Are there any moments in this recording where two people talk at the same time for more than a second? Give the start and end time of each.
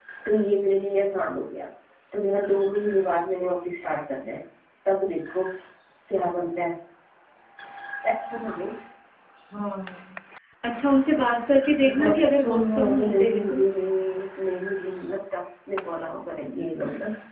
12.0-13.6

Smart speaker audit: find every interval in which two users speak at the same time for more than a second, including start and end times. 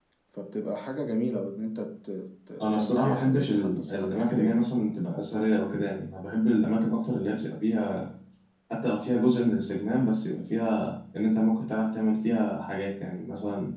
2.6-4.7

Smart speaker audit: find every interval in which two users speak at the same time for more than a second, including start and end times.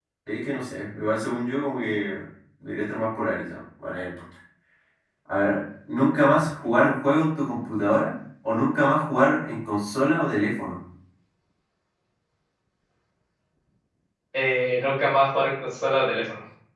none

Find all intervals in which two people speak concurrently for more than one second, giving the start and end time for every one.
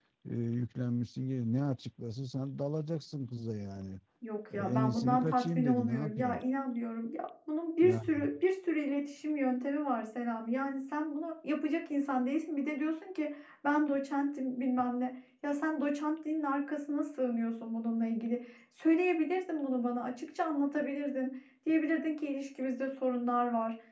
4.6-6.4

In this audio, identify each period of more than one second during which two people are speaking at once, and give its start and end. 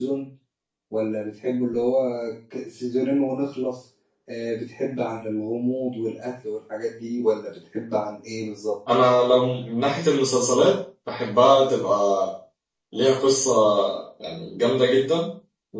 none

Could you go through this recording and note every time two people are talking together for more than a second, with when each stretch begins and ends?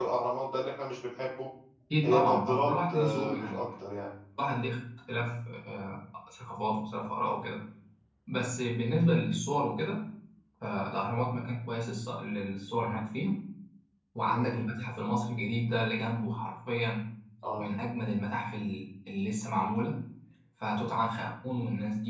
2.0-3.6

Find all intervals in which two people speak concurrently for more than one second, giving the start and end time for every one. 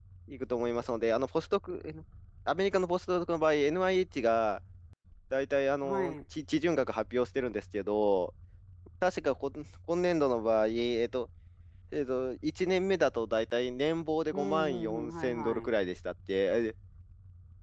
14.3-15.7

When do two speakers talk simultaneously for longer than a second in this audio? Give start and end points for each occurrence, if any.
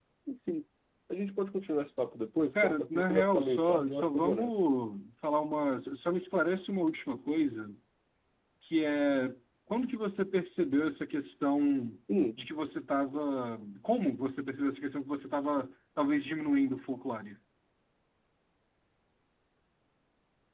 2.6-4.7

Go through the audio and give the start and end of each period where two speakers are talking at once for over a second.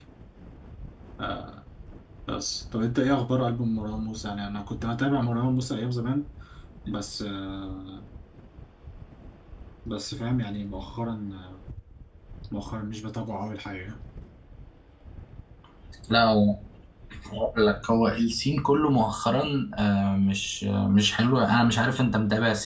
none

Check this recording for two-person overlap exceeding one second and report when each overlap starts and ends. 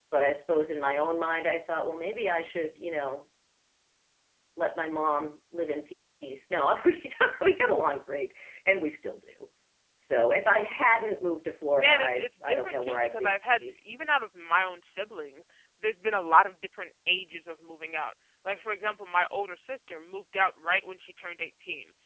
11.7-13.4

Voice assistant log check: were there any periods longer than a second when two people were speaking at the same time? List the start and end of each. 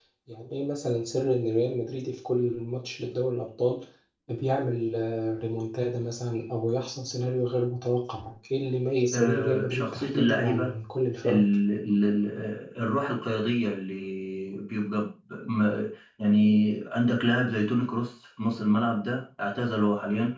9.1-10.7

